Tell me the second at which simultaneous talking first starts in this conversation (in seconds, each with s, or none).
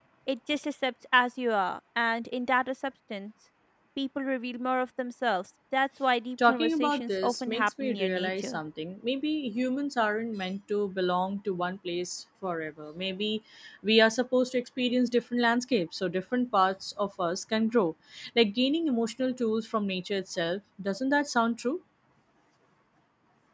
6.4 s